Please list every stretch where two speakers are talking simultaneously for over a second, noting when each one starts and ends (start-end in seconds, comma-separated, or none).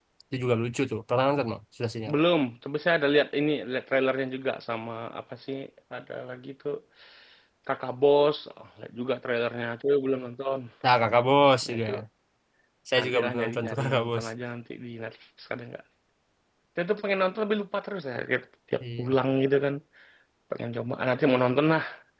13.0-14.2